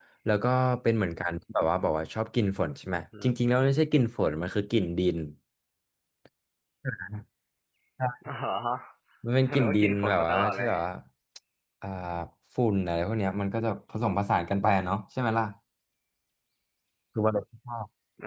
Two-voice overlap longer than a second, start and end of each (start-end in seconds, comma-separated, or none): 9.4-10.7